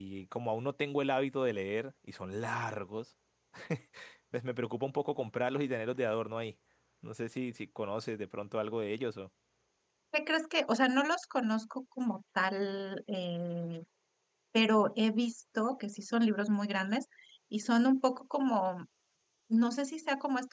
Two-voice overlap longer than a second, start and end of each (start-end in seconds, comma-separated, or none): none